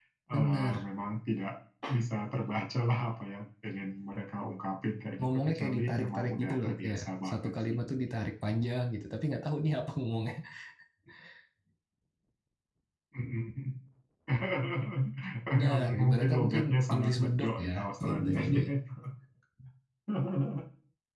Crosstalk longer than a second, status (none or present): present